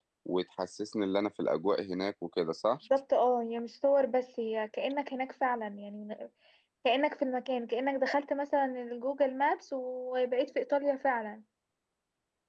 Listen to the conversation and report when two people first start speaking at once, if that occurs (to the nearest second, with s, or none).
none